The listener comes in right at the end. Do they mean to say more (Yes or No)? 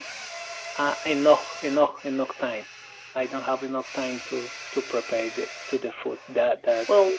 Yes